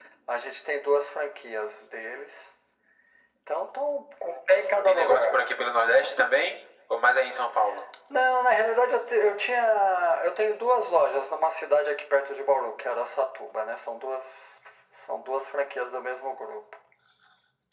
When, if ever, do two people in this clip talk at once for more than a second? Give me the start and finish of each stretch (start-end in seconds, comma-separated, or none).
none